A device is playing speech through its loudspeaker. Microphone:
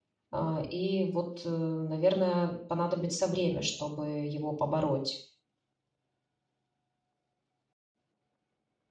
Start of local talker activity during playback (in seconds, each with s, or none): 0.3 s